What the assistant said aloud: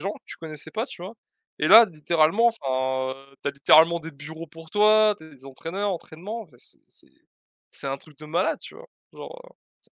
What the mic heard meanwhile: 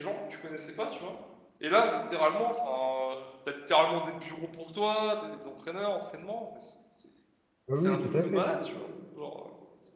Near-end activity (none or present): present